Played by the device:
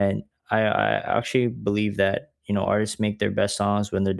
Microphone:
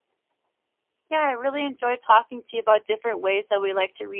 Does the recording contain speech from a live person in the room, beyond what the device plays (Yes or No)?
Yes